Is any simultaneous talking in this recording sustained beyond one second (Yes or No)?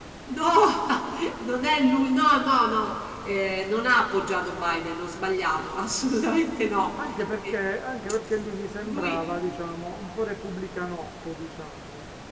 No